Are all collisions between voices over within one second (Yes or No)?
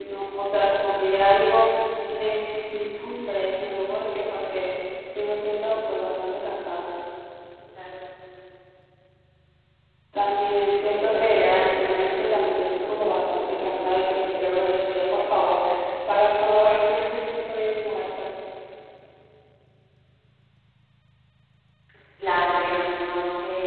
No